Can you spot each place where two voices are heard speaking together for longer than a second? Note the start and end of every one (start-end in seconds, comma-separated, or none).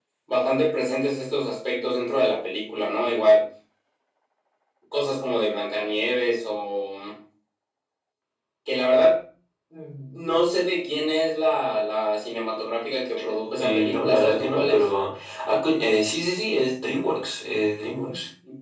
13.6-14.8